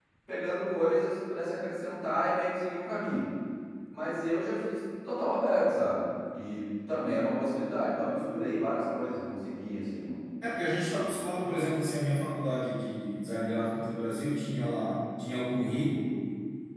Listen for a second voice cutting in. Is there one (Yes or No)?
No